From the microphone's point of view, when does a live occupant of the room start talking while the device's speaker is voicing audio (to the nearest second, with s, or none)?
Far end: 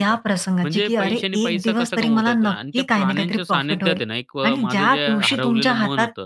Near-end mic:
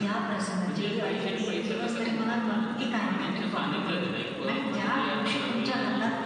none